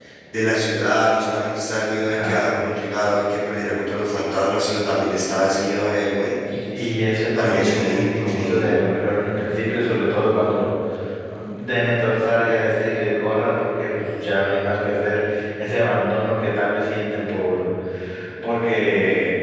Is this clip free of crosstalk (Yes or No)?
No